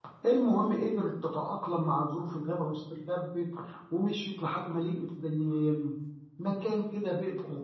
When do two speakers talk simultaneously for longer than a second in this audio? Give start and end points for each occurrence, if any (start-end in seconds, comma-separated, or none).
none